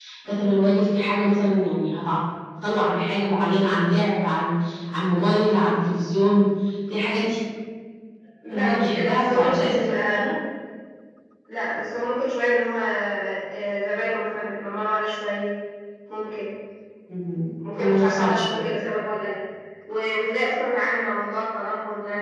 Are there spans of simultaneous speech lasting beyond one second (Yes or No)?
Yes